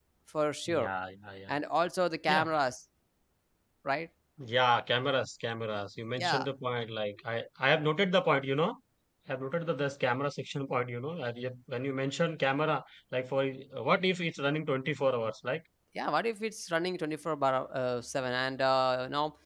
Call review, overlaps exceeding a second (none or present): none